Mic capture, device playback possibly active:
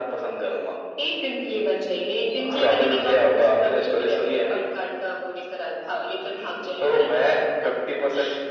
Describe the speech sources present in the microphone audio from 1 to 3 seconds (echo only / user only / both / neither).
echo only